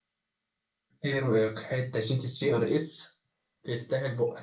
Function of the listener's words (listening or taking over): taking over